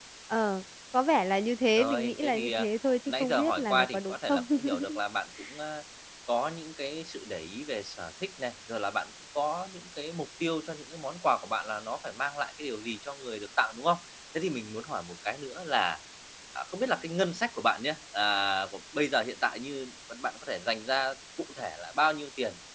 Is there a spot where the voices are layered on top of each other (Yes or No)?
Yes